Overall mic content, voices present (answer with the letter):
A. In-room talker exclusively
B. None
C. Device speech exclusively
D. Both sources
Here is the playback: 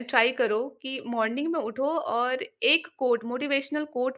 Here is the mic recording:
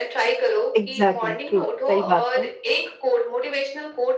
D